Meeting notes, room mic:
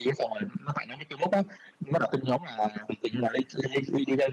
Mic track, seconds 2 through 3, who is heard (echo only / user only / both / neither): echo only